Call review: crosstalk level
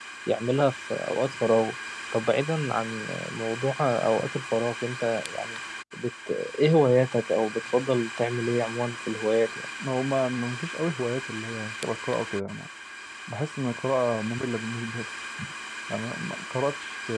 none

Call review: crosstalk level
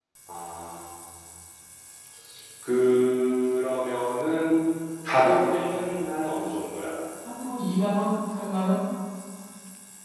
none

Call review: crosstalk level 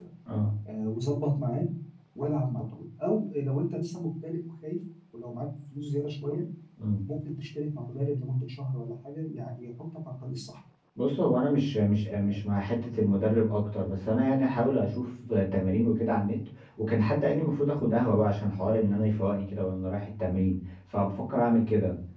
none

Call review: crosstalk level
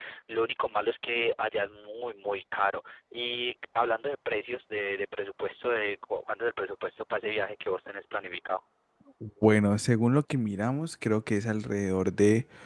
none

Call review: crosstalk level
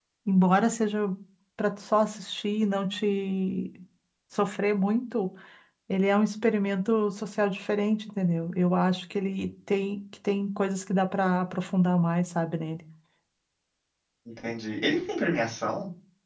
none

